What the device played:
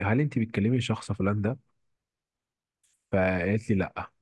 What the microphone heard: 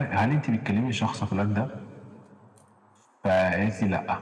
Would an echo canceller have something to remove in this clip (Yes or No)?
Yes